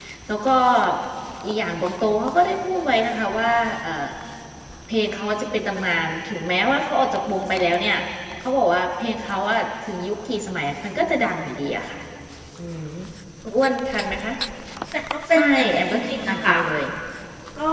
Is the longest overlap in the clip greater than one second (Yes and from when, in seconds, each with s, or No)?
Yes, from 15.3 s